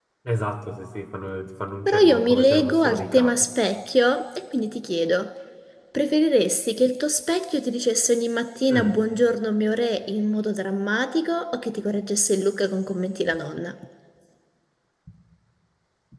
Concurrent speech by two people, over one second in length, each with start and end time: 1.9-3.5

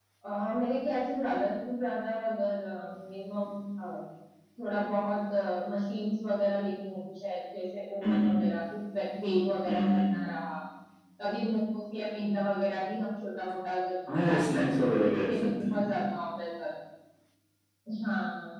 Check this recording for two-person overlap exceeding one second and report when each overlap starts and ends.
14.2-15.8

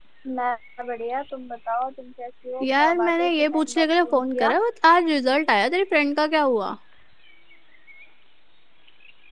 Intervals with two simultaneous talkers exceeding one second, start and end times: 2.6-4.6

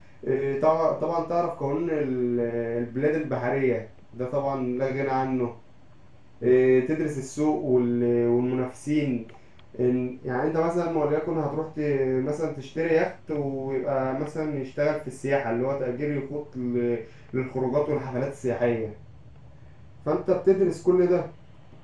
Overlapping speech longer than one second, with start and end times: none

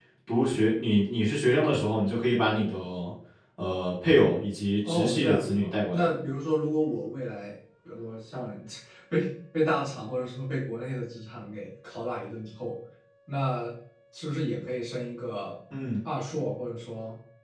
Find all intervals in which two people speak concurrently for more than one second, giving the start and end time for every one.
4.9-6.1

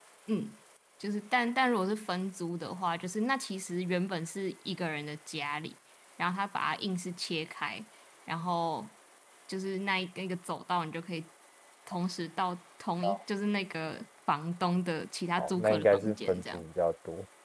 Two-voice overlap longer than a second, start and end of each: 15.4-16.6

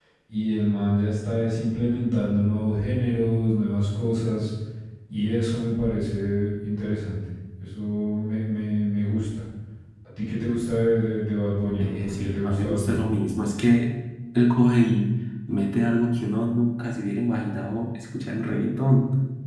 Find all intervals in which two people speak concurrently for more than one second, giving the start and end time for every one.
11.8-13.0

